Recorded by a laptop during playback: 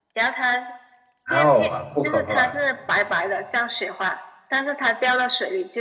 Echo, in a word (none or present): present